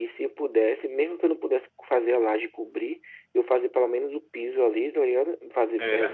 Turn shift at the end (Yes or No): No